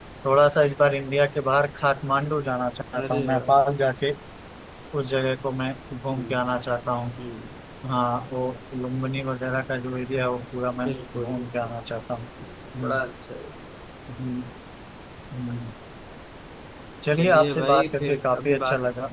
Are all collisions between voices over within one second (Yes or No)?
No